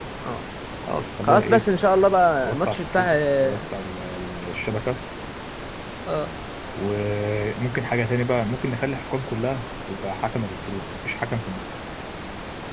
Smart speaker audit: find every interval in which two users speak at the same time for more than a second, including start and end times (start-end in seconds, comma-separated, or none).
2.4-3.7